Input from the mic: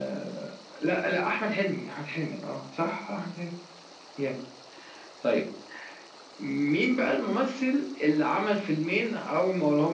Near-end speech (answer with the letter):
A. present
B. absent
B